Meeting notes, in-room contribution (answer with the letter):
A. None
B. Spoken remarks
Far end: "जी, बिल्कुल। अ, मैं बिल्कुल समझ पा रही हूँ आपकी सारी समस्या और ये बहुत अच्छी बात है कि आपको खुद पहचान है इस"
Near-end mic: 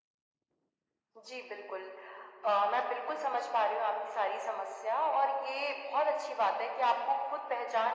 A